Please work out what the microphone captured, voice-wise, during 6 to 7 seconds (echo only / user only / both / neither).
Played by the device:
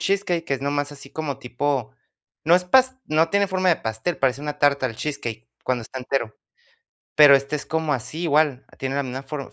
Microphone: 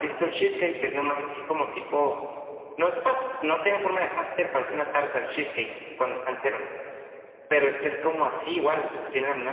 echo only